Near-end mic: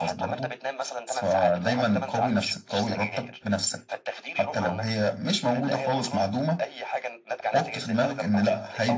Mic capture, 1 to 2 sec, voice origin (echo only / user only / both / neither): both